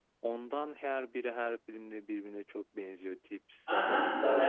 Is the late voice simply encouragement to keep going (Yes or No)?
No